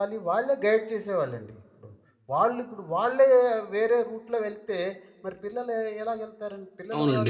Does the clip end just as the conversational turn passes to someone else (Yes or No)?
Yes